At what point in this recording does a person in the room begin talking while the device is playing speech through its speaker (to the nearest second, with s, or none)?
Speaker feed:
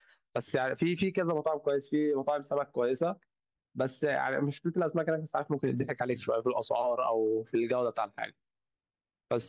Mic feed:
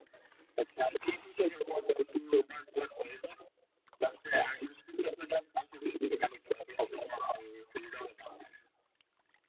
none